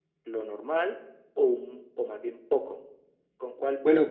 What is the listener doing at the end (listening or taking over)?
taking over